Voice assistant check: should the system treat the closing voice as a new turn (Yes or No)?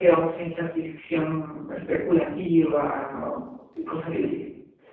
Yes